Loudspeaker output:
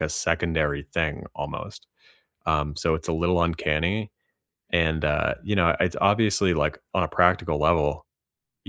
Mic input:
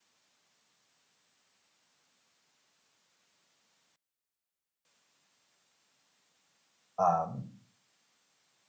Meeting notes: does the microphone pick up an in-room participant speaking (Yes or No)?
Yes